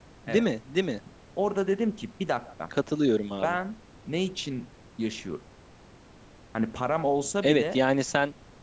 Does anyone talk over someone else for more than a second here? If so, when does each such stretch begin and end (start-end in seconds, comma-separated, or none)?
none